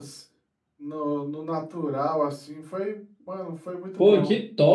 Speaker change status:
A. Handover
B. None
A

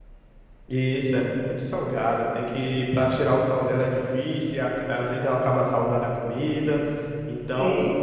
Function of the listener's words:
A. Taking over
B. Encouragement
B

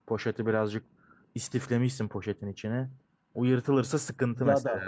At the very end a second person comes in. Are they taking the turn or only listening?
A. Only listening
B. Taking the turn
B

